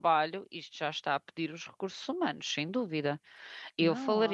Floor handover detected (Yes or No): Yes